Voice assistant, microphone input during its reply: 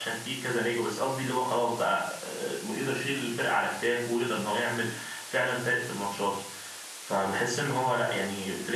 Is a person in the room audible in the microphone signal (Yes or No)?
Yes